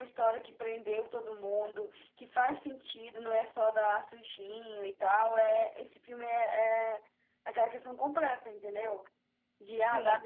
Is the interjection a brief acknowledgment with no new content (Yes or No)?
Yes